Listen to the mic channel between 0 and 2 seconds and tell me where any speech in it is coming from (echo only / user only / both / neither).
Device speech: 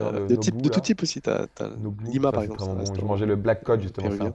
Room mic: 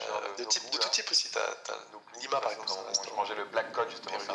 echo only